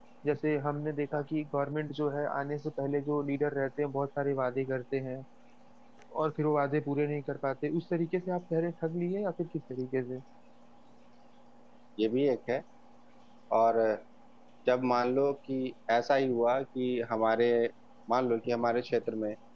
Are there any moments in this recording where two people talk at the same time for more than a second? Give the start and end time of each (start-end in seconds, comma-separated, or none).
none